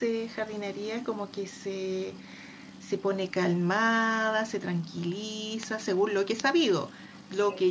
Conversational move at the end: taking over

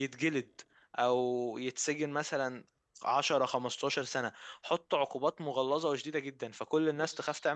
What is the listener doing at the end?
listening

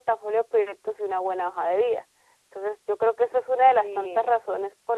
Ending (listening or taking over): listening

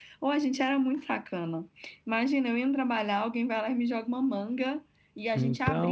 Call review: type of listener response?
listening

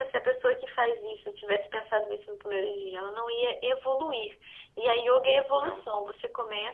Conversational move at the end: listening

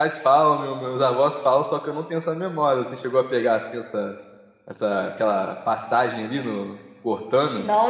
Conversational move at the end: taking over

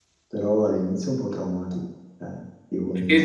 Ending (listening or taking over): listening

